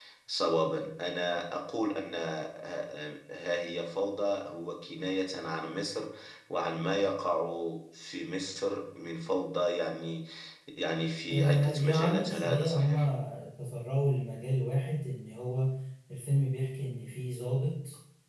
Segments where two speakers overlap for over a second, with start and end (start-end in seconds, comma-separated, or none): 11.3-13.0